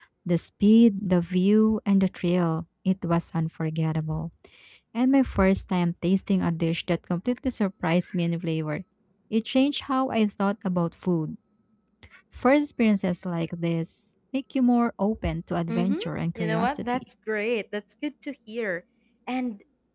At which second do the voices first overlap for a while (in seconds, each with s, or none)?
15.7 s